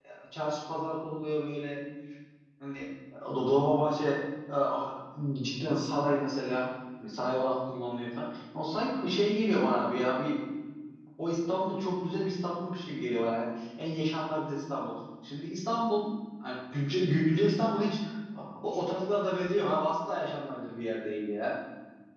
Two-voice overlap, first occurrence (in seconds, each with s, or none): none